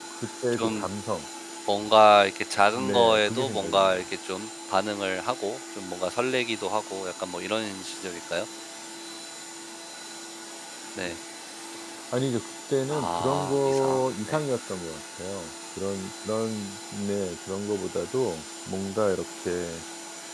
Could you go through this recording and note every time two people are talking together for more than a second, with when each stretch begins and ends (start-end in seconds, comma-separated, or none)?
2.7-4.0, 12.9-14.4